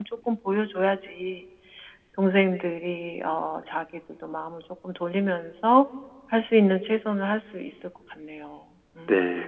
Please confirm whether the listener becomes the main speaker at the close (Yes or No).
Yes